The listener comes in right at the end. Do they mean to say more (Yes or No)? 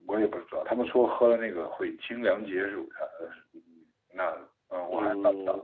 Yes